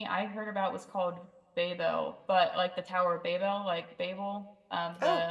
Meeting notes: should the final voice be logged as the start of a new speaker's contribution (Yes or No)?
Yes